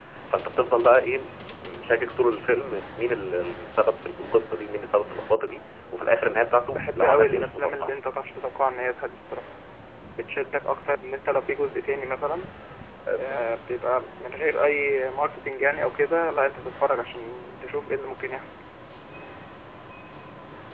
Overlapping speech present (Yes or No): Yes